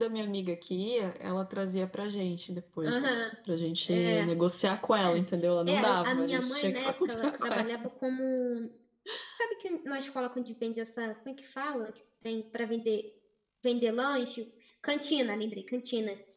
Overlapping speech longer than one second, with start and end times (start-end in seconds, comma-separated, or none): 5.7-7.7